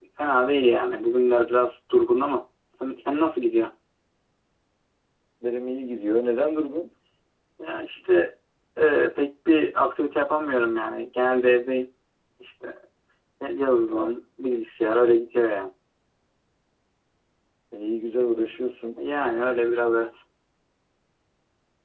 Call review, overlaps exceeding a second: none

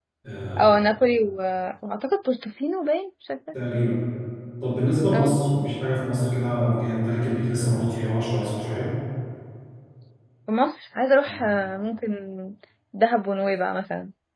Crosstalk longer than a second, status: none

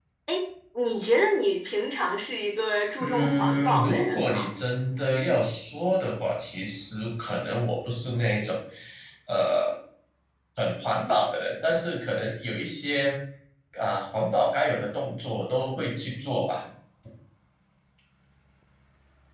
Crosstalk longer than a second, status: present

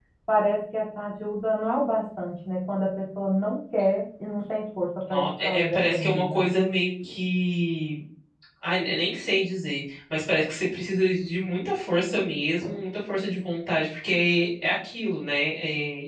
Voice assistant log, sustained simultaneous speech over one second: present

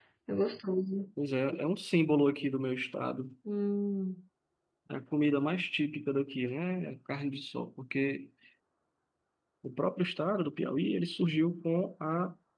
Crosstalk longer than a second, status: none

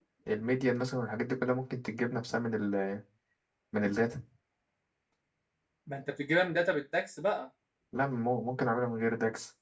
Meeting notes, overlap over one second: none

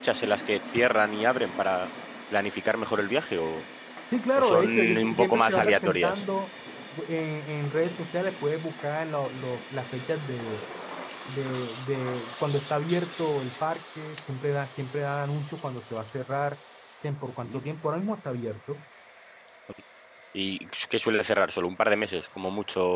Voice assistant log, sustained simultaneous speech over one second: present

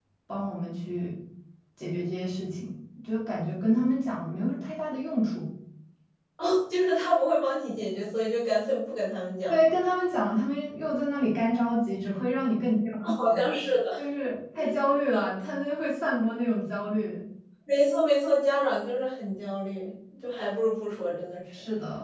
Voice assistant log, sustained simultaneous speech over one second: none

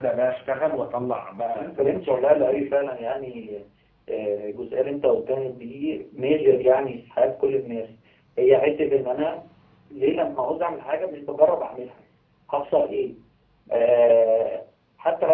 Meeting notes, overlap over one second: present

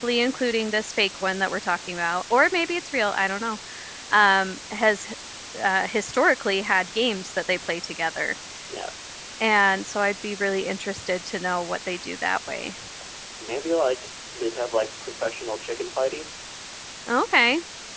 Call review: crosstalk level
none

